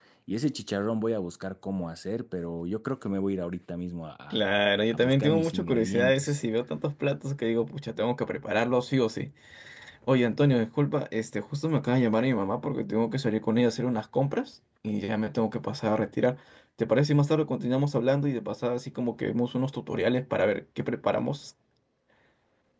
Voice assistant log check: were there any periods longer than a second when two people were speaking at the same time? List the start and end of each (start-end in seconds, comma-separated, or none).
4.9-6.4